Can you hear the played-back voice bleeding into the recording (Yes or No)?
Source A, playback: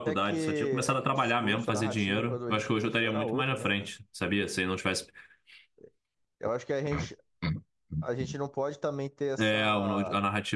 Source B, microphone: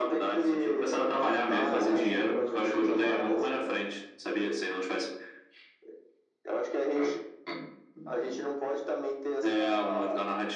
Yes